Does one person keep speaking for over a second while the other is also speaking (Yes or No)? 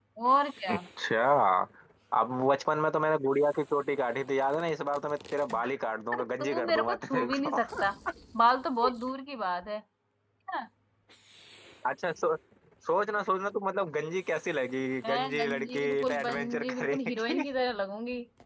Yes